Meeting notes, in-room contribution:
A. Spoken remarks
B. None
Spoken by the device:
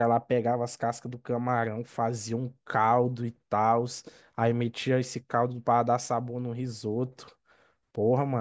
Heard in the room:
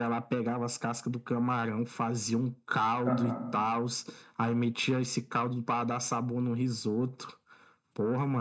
A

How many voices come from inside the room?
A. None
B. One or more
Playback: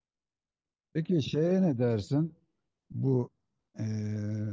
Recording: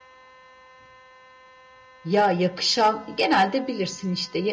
B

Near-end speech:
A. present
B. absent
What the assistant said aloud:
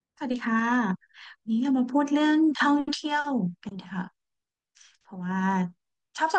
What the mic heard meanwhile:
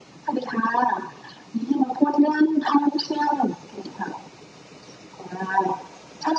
B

